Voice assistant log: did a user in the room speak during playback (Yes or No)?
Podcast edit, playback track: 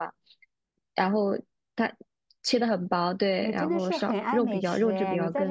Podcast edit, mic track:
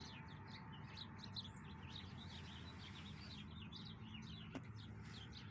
No